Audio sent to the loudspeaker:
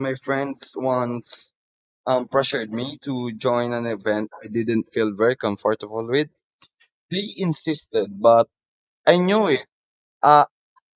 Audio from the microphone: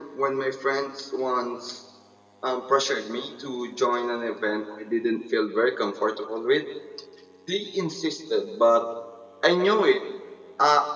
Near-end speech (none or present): none